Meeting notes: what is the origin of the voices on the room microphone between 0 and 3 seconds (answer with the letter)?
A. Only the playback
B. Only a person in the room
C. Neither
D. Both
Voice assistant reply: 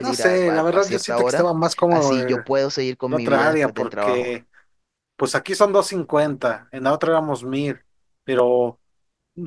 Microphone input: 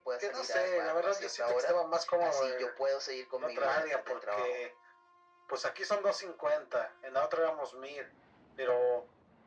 A